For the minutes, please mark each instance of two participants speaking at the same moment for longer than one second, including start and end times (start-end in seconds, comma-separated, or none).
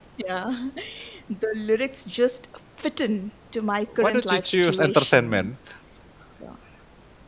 4.0-5.5